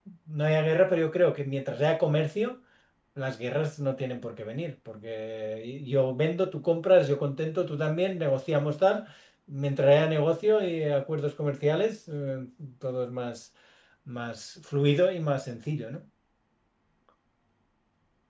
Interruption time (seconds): none

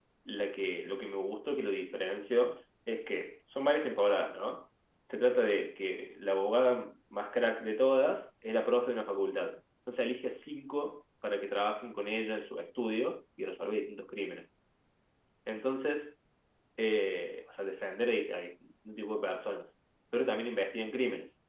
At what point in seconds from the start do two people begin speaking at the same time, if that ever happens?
none

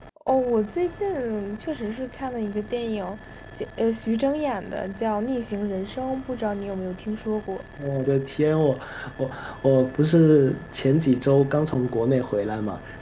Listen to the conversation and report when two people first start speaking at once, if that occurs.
none

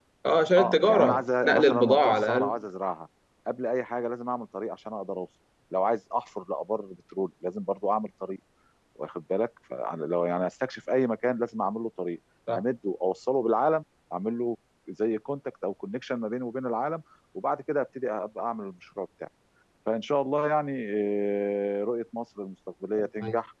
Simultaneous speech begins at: 0.6 s

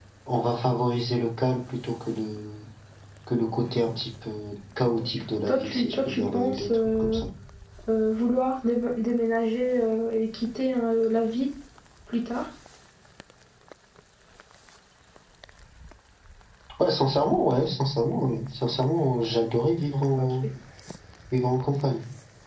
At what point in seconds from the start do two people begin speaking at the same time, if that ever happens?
5.5 s

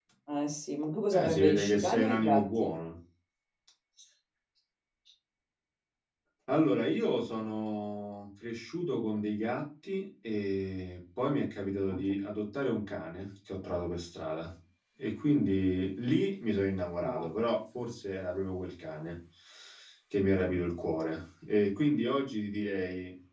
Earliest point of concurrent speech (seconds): 1.1 s

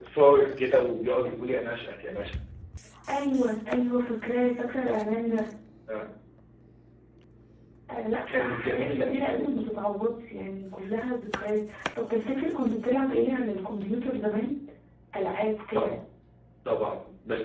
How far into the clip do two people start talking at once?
8.3 s

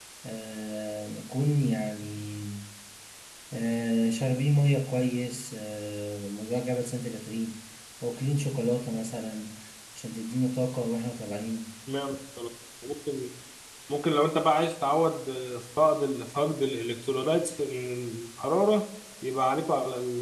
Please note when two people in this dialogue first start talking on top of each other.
none

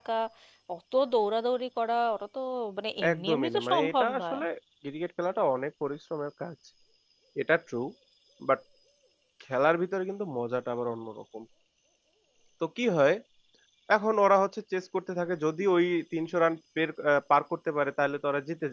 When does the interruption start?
3.1 s

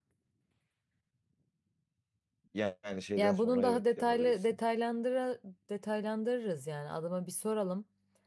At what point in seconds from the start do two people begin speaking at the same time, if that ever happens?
3.2 s

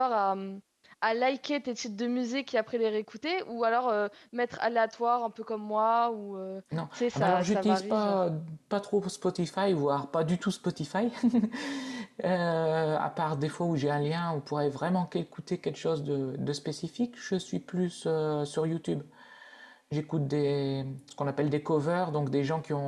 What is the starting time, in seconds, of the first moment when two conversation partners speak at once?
6.7 s

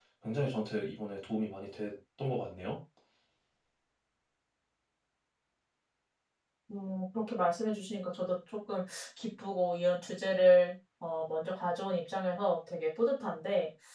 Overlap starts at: none

